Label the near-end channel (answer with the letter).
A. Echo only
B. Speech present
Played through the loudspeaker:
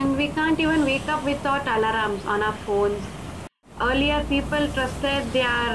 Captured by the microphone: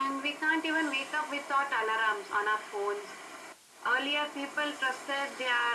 A